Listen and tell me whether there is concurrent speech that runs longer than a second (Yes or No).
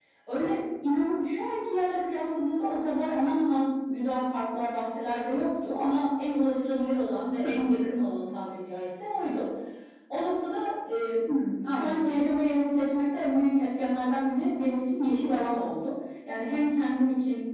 No